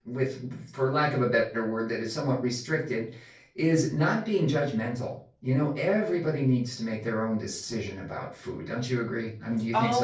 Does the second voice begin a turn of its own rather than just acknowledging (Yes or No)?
Yes